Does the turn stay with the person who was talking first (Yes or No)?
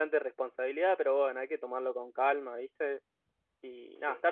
Yes